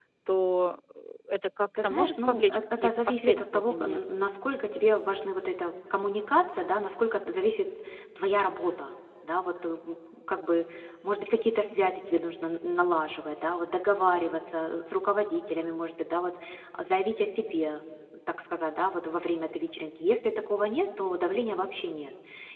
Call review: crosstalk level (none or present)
present